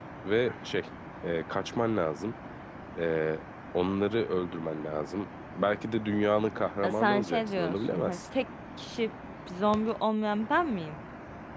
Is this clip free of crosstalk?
No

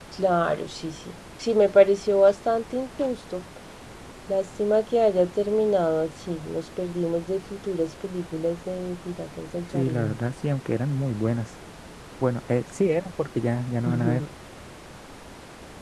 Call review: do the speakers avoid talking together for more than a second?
Yes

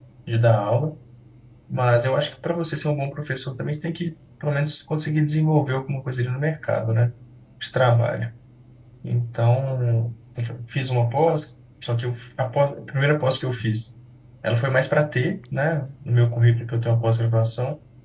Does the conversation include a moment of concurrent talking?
No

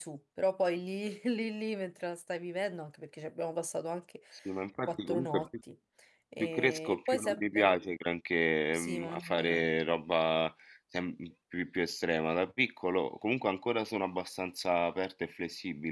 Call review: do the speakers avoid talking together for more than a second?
No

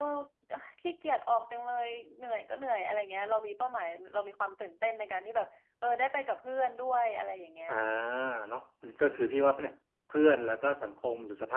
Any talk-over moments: No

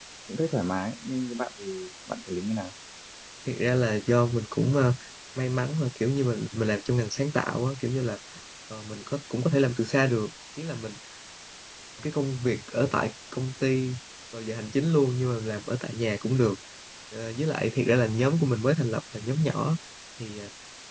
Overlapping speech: No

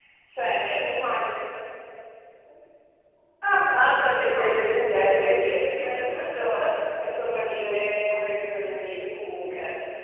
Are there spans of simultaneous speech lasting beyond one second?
Yes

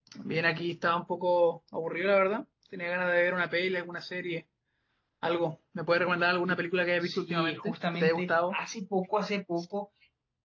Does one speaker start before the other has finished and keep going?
Yes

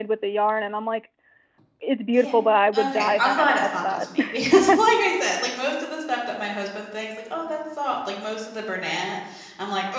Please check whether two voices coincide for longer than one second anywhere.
Yes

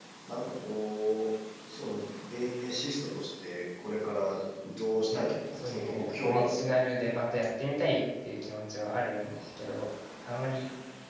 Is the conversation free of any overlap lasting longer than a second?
No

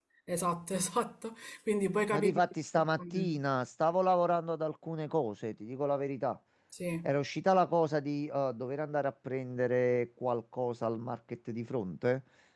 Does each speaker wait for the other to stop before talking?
No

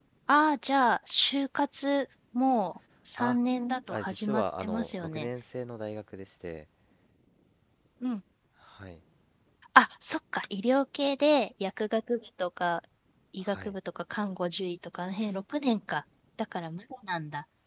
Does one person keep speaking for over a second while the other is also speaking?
Yes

